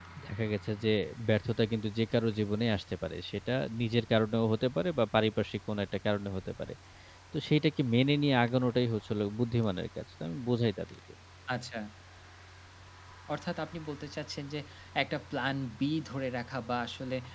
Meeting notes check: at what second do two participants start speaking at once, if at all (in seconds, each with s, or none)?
none